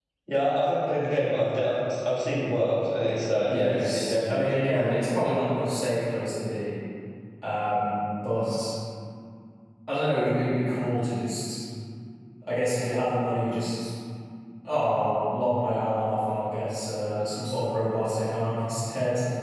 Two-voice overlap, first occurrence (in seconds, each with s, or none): 3.5 s